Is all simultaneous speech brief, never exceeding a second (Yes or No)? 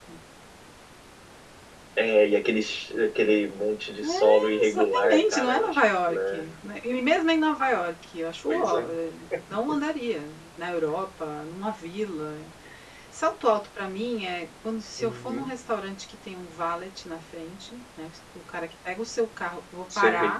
No